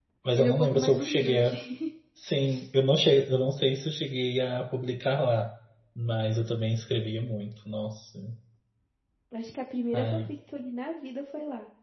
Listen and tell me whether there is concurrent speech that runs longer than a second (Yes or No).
Yes